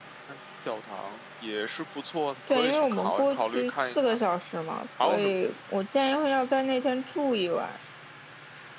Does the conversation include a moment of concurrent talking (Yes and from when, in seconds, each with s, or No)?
Yes, from 2.5 s